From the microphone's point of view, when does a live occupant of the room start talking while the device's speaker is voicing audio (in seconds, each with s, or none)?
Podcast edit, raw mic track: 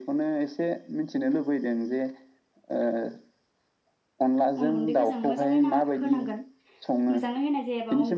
4.6 s